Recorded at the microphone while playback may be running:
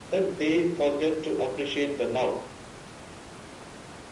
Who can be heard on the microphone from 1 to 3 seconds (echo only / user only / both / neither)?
echo only